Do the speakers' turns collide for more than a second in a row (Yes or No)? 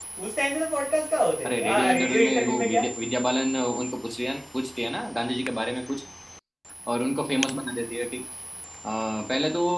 Yes